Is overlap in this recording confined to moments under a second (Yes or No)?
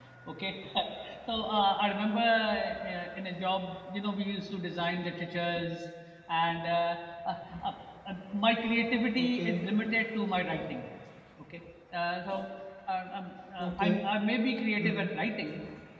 Yes